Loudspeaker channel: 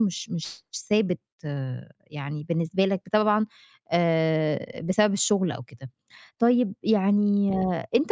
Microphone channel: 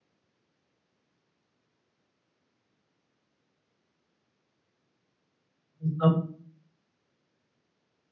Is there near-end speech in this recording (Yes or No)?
Yes